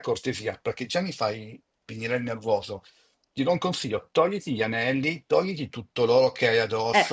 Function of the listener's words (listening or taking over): taking over